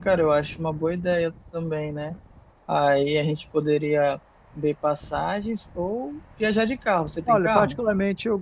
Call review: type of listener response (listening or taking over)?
taking over